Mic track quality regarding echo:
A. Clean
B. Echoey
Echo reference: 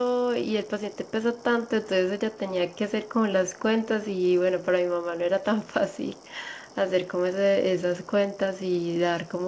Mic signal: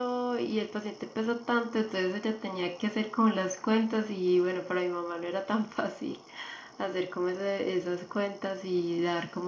B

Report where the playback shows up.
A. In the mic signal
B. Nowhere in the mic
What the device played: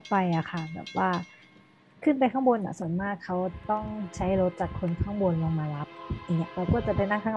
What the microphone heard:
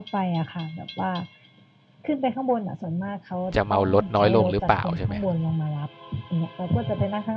A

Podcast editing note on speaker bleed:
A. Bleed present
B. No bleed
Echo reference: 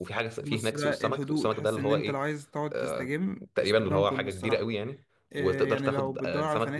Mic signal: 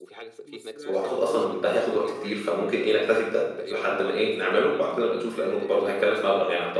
A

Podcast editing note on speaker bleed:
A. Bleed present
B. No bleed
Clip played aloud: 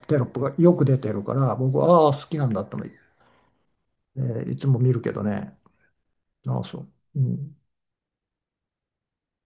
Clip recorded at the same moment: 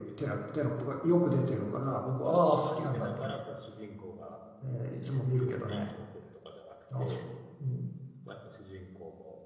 A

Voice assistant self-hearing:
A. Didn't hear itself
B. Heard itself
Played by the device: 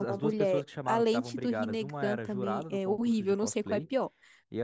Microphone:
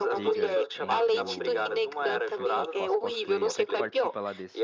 B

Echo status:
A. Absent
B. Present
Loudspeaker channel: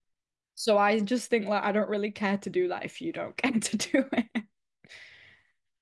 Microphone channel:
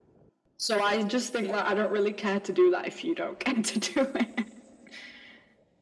B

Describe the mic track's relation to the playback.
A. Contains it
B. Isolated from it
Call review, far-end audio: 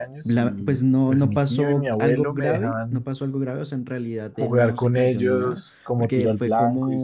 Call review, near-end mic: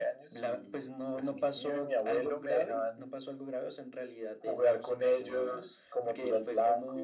A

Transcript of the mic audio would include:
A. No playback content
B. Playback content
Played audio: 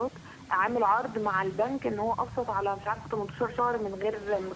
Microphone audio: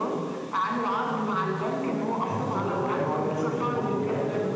B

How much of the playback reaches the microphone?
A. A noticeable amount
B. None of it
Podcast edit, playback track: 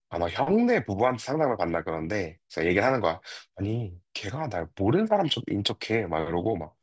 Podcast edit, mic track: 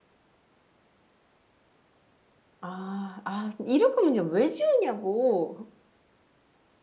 B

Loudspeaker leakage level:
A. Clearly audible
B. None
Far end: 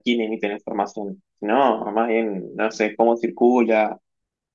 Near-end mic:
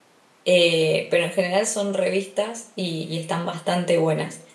B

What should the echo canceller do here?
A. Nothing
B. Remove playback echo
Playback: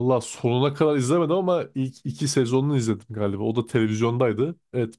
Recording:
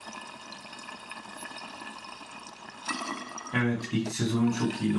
A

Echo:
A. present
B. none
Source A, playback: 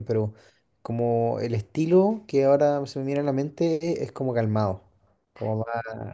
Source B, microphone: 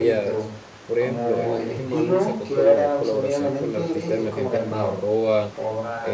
A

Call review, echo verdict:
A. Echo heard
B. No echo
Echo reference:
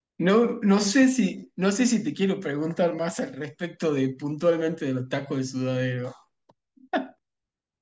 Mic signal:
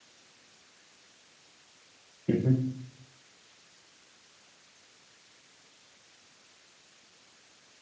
B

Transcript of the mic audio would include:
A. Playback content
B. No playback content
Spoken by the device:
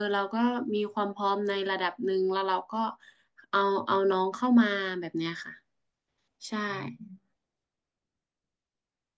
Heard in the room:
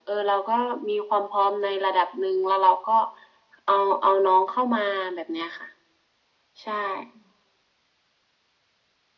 A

